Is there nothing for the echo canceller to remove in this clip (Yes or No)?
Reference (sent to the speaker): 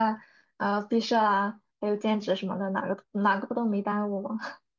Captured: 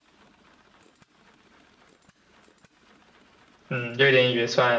Yes